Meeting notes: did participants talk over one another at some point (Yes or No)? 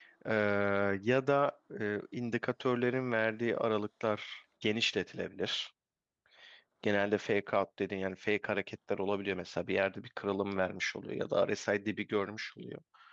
No